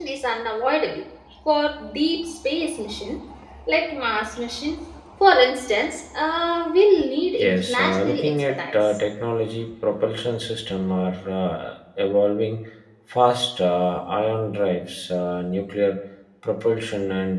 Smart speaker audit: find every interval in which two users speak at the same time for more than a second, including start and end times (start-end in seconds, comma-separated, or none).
7.4-9.0